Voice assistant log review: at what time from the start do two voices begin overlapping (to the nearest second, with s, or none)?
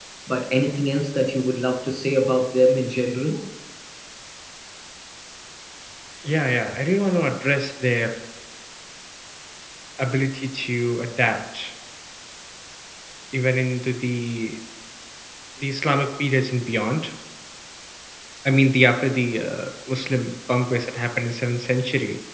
none